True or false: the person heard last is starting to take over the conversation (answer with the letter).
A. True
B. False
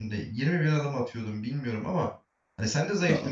B